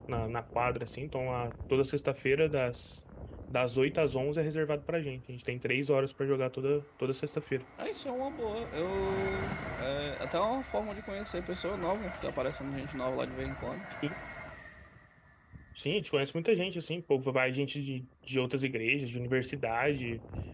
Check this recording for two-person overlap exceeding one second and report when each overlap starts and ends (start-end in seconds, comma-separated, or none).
none